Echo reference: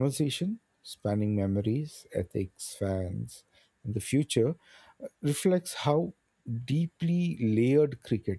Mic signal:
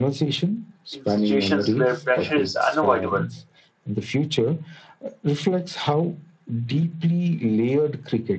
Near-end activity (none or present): present